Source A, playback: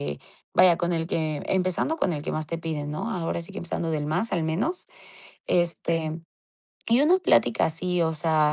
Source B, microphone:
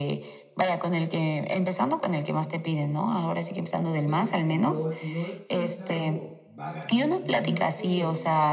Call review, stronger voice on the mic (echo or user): echo